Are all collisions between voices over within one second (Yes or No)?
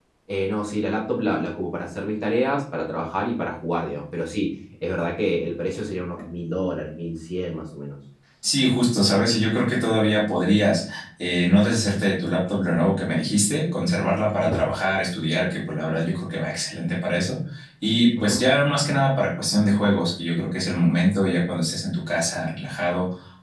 Yes